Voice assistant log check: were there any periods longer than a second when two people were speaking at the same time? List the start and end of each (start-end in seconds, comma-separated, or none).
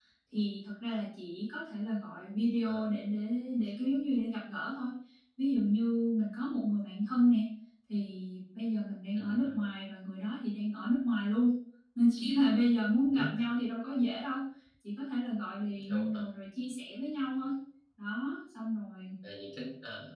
none